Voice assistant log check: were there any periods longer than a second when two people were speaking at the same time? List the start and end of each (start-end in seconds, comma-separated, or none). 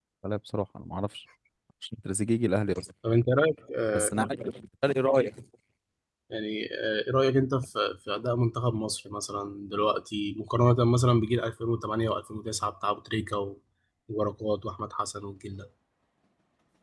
none